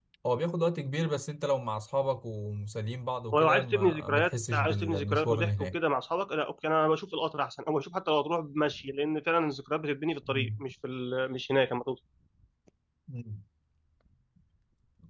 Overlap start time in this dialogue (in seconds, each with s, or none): 3.3 s